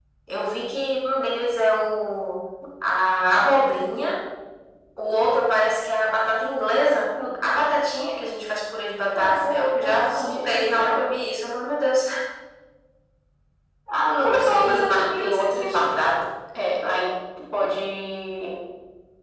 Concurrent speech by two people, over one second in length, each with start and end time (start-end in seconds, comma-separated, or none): 9.1-11.1, 14.2-16.0